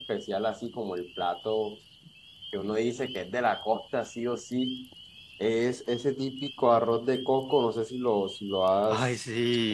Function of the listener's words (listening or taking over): listening